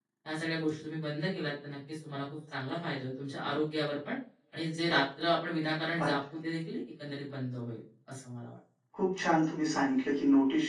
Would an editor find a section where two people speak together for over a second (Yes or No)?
No